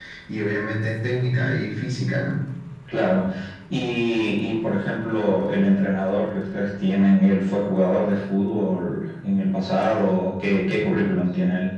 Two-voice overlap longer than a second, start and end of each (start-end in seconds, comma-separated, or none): none